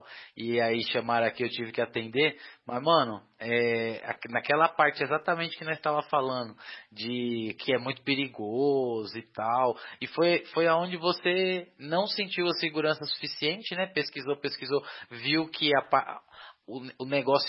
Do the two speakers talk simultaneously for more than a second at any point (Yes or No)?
No